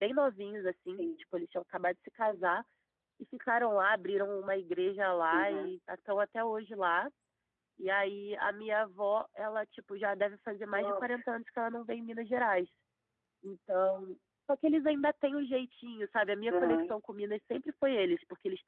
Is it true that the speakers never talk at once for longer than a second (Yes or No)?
Yes